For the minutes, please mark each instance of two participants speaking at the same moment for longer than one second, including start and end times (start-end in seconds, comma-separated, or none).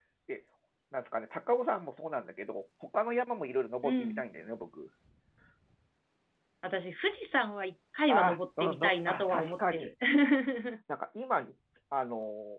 8.1-9.9